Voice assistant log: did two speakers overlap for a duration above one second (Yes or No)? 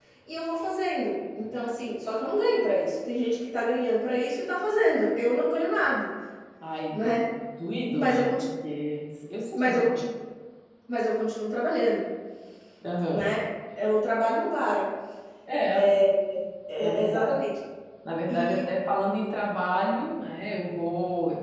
No